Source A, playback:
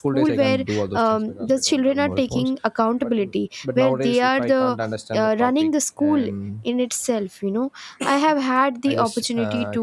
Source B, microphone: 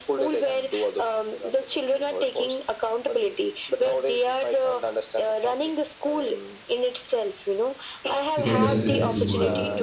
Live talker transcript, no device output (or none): you can just switch it to a